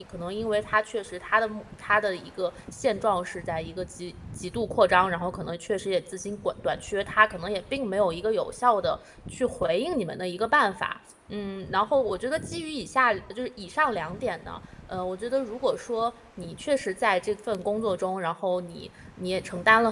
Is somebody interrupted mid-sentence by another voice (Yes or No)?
No